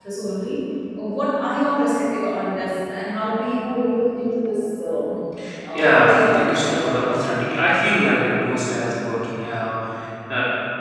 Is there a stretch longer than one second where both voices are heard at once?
Yes, from 5.7 s

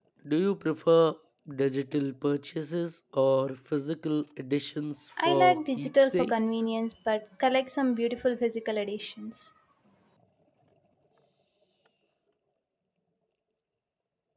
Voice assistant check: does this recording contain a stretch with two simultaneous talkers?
Yes, from 5.2 s

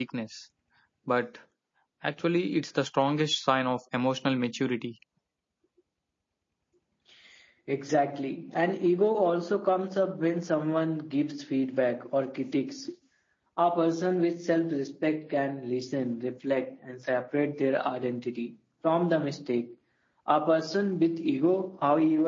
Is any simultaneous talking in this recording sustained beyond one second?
No

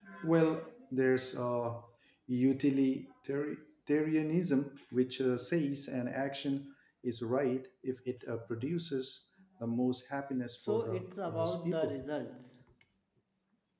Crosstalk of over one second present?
Yes, from 10.6 s

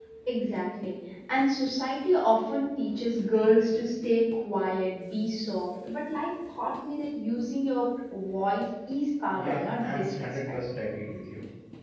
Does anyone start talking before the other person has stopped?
Yes, from 9.3 s

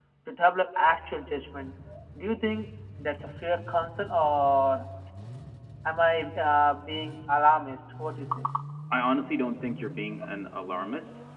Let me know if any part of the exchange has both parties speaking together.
No

